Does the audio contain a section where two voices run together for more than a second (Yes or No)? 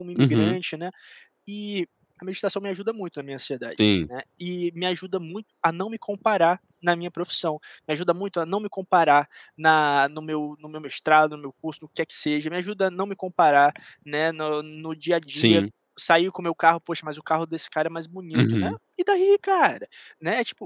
No